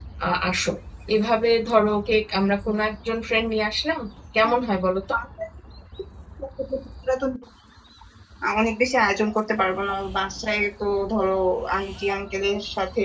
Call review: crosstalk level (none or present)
none